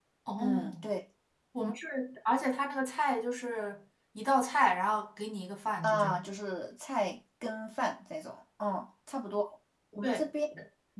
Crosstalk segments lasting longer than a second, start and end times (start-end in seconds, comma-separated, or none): none